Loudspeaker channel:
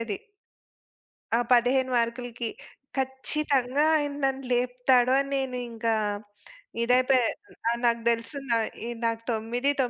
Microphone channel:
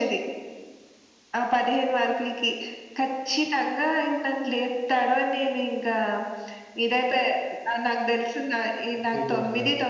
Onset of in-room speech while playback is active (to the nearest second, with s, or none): 9 s